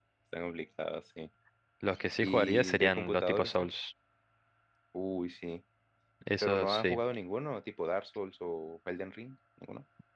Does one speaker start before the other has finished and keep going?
Yes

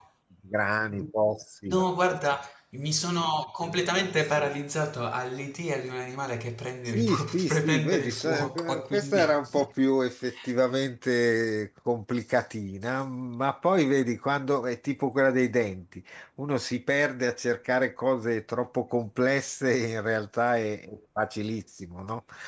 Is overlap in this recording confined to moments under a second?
No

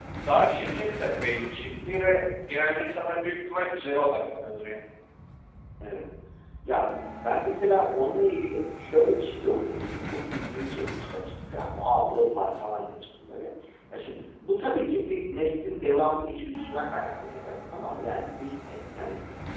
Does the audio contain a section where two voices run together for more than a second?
No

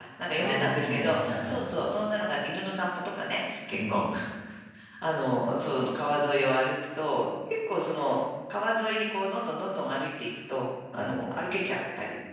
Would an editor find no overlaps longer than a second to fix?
No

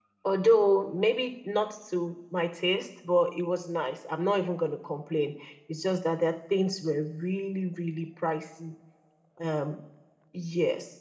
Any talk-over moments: No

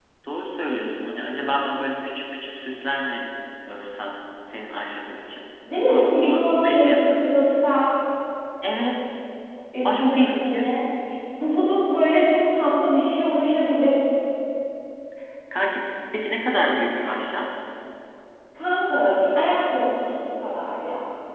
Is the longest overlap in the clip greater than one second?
Yes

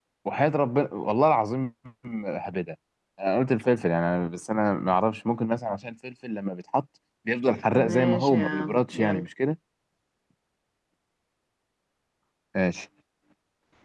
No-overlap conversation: No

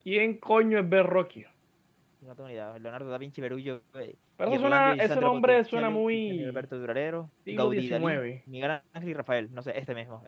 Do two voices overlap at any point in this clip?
Yes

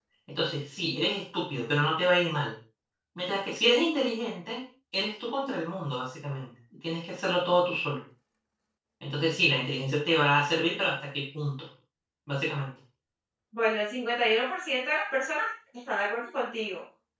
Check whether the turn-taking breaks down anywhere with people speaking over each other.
No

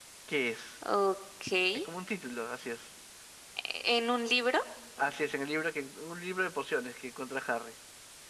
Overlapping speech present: No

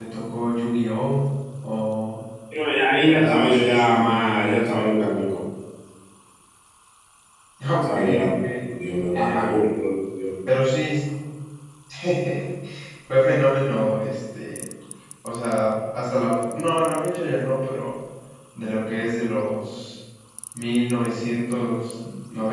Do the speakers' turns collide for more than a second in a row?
Yes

